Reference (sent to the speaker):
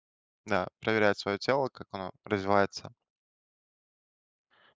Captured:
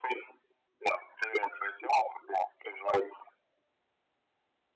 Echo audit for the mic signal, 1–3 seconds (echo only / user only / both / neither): echo only